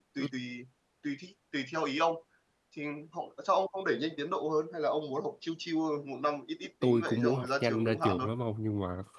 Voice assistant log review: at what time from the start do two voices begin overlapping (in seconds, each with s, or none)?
6.8 s